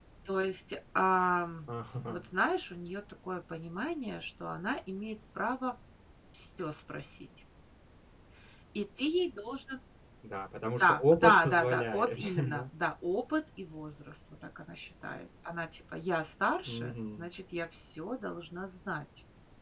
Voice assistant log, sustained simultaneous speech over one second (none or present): present